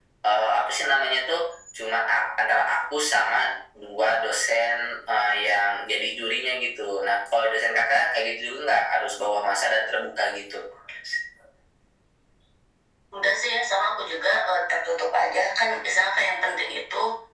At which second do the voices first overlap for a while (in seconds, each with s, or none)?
none